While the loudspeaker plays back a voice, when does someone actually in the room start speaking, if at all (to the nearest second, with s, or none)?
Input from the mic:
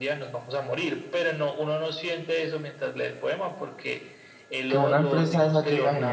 5 s